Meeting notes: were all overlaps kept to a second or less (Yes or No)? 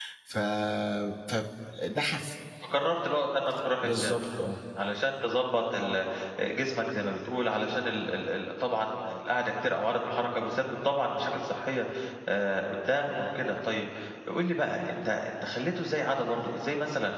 Yes